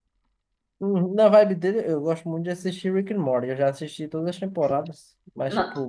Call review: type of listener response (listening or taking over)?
listening